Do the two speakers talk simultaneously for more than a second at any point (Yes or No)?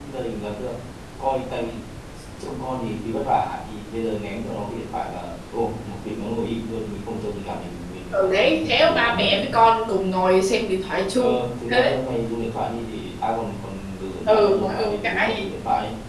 Yes